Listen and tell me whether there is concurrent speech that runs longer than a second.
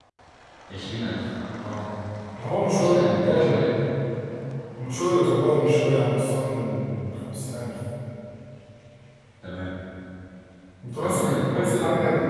Yes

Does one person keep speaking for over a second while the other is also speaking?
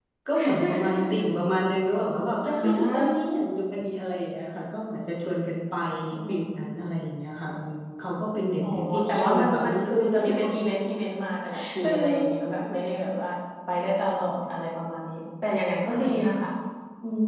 Yes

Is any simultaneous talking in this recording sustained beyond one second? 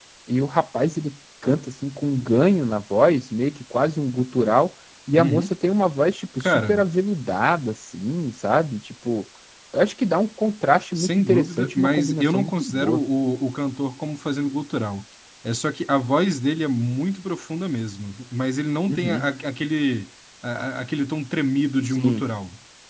Yes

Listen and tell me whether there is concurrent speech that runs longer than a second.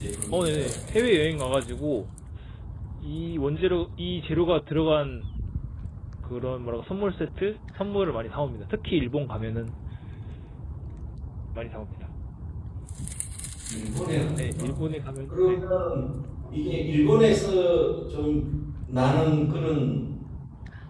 No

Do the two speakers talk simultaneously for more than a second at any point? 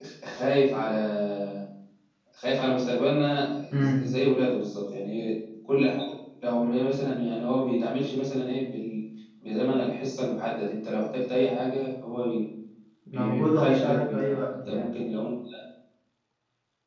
Yes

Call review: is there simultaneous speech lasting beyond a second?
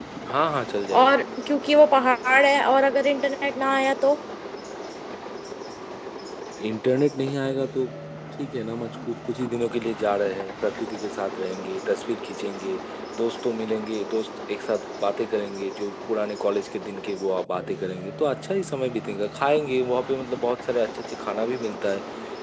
No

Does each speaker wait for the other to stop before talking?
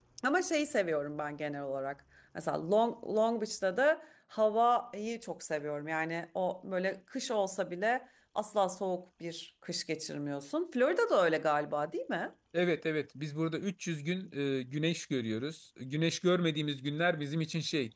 Yes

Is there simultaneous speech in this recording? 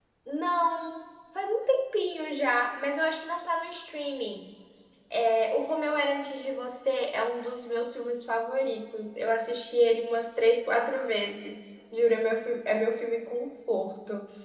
No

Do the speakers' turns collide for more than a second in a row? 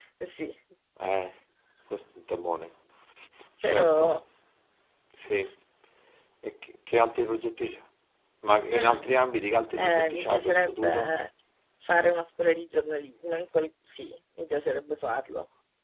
Yes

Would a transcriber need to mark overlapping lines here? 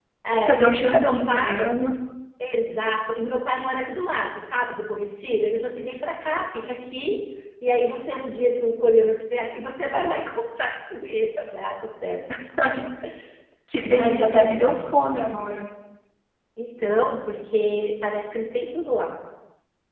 Yes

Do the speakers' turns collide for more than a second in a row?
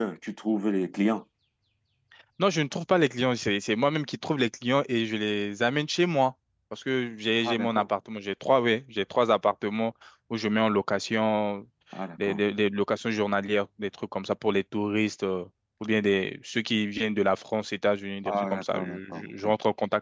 Yes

